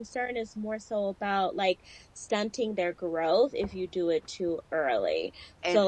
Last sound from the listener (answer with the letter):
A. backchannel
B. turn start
A